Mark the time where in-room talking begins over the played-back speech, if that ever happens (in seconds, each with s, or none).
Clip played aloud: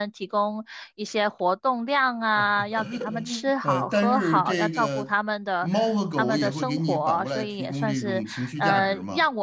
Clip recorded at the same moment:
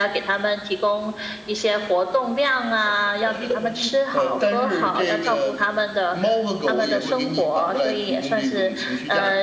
none